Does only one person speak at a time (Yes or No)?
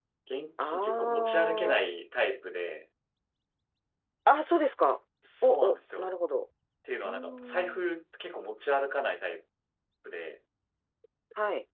No